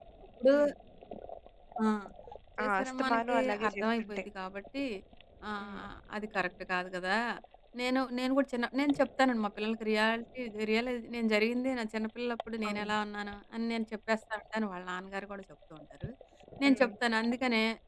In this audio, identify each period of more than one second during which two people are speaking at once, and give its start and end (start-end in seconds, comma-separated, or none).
2.6-4.2